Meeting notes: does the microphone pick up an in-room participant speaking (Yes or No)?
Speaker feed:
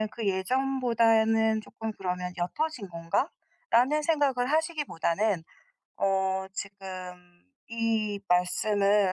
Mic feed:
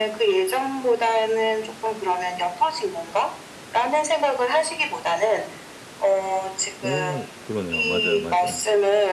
Yes